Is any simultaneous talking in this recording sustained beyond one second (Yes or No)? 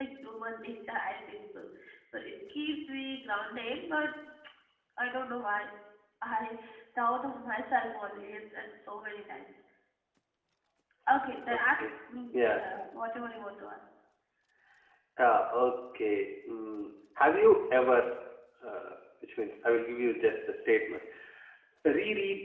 No